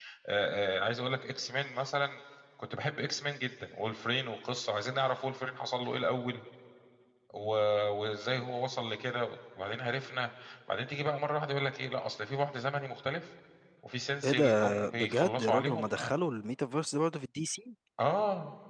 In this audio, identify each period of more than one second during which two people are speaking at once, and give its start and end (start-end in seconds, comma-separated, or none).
14.2-15.8